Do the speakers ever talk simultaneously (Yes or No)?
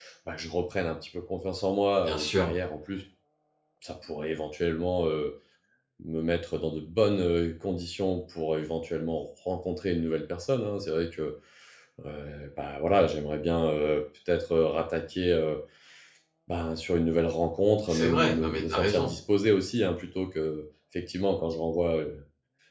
Yes